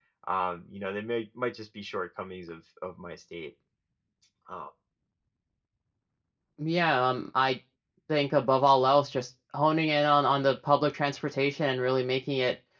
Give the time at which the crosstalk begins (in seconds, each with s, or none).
none